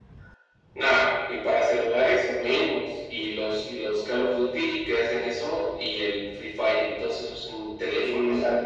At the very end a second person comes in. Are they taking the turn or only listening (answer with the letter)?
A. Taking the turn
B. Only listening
A